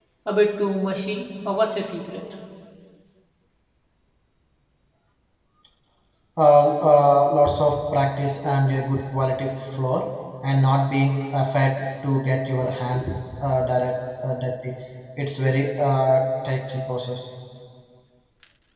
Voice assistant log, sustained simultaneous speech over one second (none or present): none